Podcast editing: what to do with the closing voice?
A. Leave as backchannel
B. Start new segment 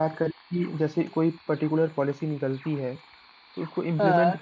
A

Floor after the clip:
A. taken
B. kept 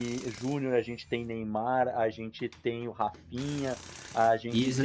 A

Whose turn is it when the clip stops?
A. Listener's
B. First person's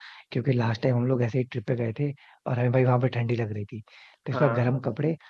B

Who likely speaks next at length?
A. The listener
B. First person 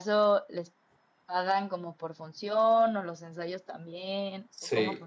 A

